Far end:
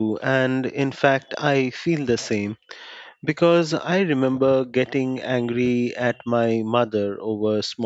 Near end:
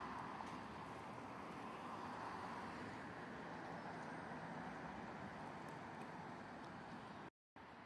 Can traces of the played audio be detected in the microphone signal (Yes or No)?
No